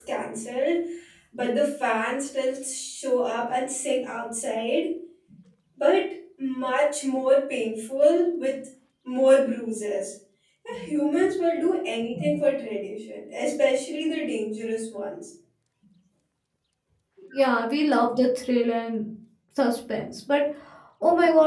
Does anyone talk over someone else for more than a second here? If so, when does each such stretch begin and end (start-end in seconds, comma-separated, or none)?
none